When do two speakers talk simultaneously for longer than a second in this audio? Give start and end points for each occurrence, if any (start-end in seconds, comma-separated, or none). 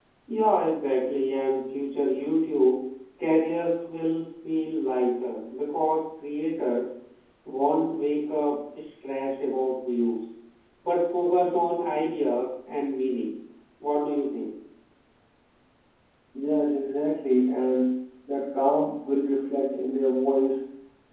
none